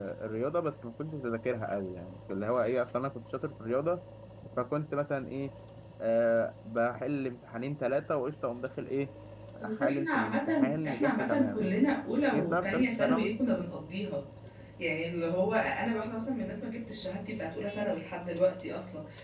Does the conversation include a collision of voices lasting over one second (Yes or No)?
Yes